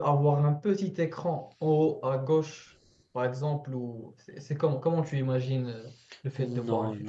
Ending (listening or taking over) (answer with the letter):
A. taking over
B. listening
A